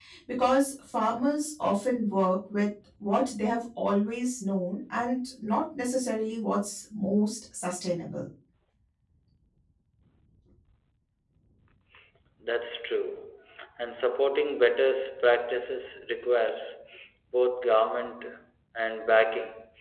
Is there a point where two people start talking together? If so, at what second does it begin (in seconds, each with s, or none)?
none